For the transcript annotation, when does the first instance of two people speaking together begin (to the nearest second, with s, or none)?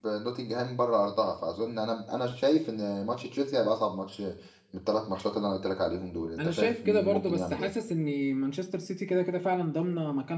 6 s